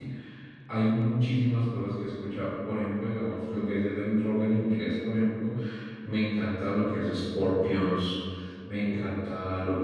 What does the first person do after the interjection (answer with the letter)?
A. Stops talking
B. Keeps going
B